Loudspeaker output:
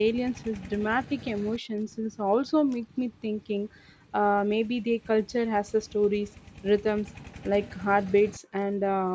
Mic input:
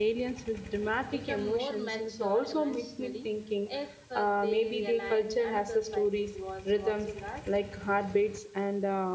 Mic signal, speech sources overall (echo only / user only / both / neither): both